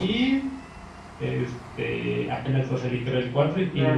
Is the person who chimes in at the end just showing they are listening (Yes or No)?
No